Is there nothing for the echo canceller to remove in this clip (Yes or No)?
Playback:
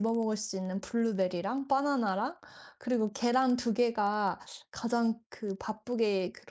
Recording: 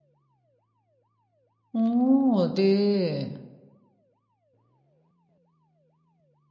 Yes